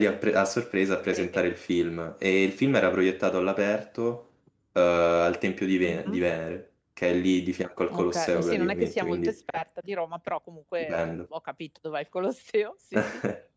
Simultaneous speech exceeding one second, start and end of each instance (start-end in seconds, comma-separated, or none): 7.9-9.3